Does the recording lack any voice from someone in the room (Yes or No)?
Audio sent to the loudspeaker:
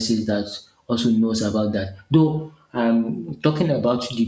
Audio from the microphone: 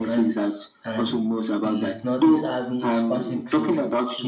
No